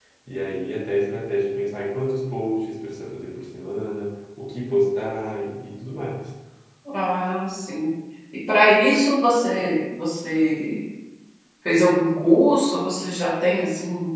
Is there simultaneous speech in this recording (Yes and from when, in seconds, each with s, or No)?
No